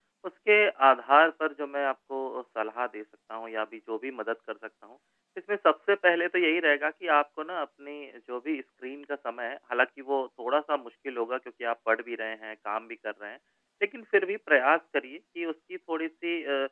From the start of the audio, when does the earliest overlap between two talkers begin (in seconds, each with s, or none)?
none